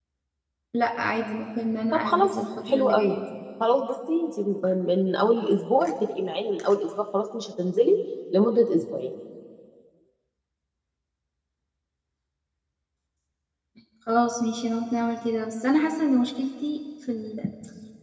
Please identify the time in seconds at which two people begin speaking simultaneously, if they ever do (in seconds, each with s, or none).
1.9 s